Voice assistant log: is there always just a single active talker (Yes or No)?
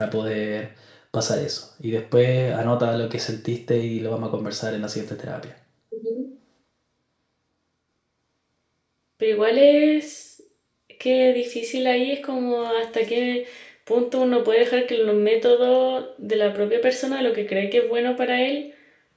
Yes